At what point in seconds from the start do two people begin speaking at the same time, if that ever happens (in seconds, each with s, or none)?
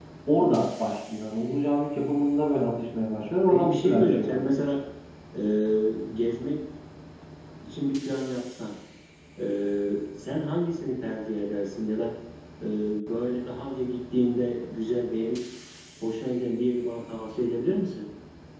3.5 s